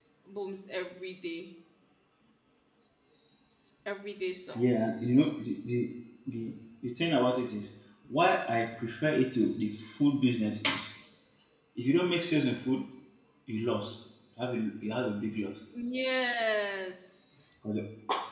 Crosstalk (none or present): none